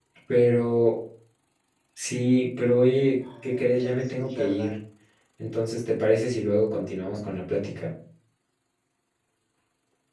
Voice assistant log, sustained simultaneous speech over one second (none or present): present